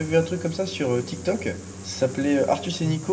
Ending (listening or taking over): listening